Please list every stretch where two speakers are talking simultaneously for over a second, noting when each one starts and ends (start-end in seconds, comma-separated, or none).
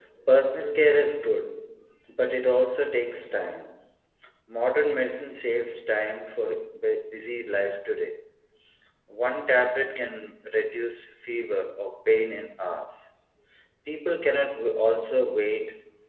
none